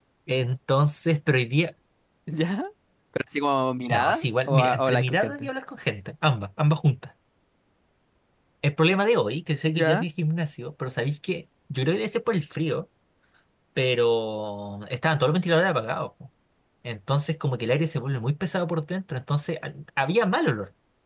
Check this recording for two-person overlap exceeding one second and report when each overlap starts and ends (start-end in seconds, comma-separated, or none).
3.9-5.5